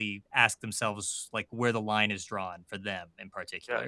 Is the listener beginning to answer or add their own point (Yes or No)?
Yes